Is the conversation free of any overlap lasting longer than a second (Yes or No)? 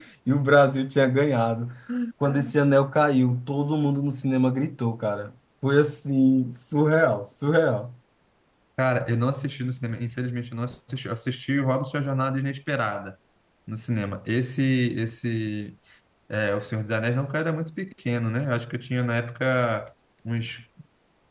Yes